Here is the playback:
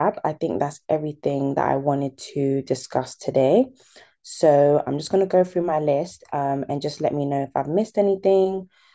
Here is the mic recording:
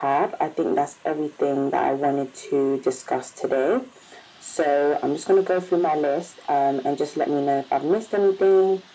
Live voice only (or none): none